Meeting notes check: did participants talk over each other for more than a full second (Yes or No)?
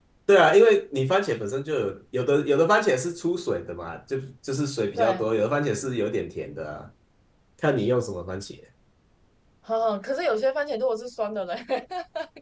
No